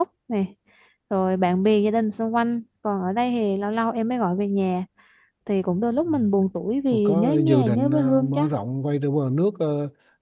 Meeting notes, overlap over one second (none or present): present